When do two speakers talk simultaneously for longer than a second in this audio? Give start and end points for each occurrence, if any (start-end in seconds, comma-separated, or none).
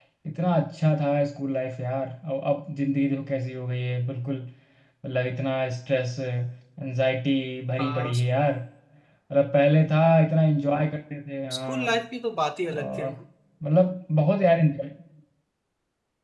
none